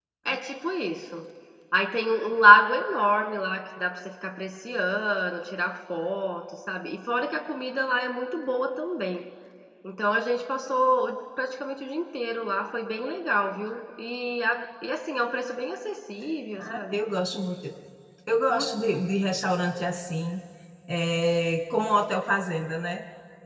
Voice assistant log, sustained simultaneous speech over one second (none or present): none